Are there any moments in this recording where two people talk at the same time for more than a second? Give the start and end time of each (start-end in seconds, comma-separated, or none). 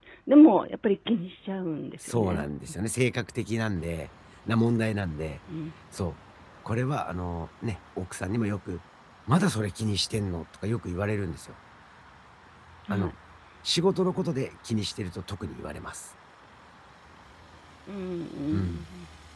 none